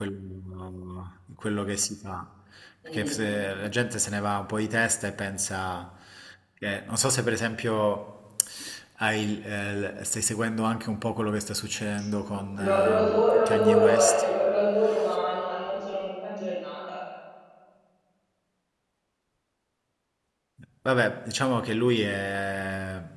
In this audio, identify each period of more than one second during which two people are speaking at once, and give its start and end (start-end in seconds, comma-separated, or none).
12.6-14.2